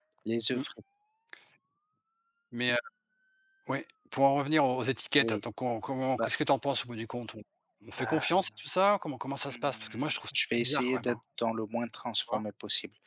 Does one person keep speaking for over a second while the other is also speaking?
Yes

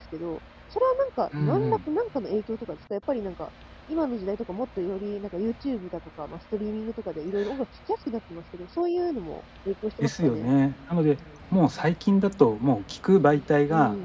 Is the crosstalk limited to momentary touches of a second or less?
Yes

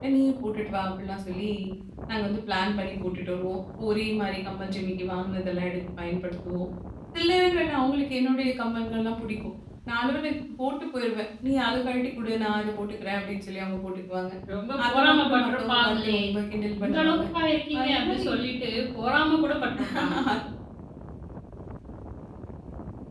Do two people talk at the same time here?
Yes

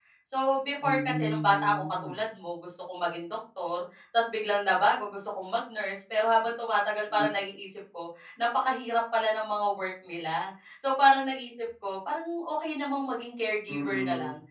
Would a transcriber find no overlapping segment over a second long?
No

